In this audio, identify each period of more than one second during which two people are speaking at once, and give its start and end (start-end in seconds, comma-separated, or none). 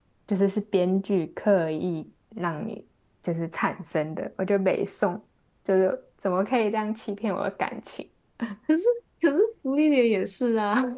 none